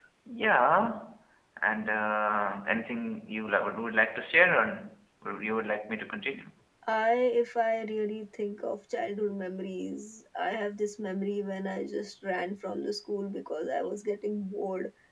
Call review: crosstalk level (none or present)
none